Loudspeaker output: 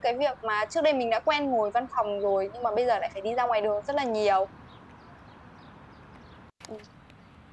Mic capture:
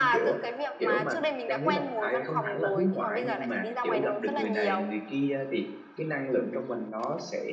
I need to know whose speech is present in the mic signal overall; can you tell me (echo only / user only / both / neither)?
both